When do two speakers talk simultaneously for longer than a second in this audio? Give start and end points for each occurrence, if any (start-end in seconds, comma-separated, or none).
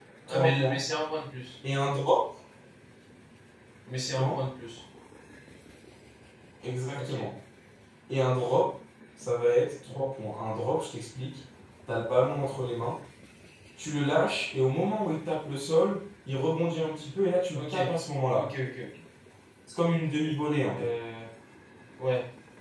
none